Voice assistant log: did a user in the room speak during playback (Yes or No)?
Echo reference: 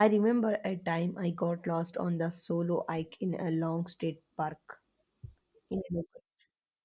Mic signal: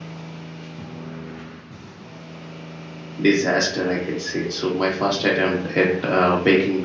Yes